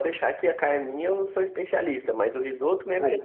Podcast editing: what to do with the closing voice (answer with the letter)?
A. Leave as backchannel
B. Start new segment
A